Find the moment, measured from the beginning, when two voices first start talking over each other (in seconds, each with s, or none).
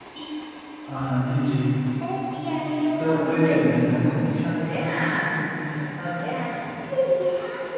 3.0 s